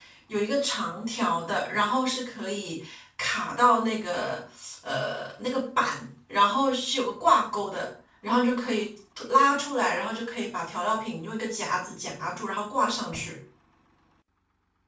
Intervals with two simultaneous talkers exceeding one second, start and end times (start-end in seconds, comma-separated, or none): none